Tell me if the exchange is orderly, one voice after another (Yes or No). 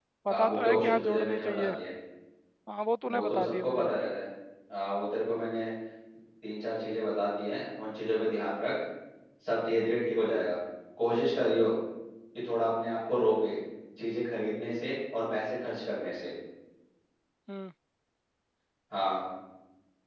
No